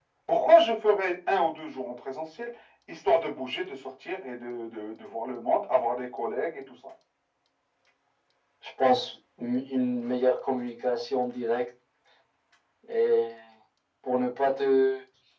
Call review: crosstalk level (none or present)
none